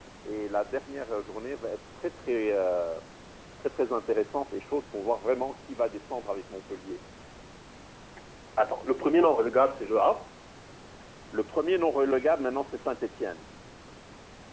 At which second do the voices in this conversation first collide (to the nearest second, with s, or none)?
none